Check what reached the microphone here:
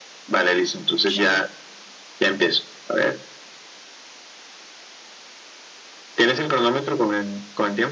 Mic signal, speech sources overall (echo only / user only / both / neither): both